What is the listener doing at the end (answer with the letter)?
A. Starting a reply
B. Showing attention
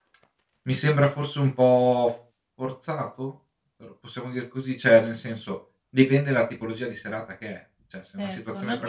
A